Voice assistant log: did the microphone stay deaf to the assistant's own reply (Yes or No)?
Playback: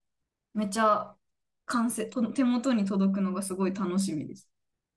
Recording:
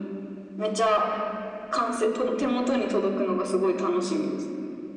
No